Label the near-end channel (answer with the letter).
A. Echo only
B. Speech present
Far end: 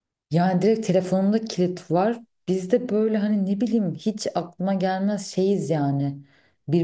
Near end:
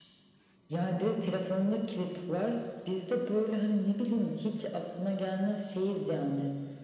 A